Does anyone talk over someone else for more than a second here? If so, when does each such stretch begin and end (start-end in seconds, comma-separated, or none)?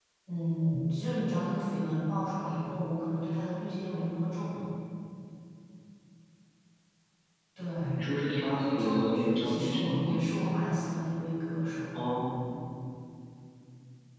8.6-10.2